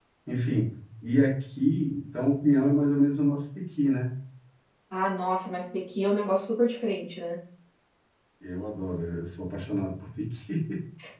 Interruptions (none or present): none